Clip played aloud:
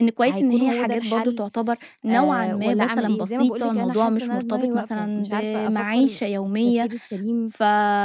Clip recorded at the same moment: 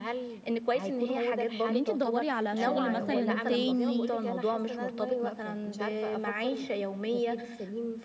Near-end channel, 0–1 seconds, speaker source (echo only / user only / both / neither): echo only